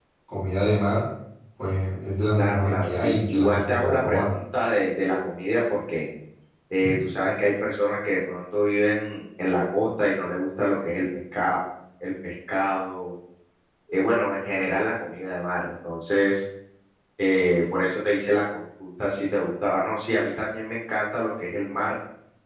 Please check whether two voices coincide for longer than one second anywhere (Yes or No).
Yes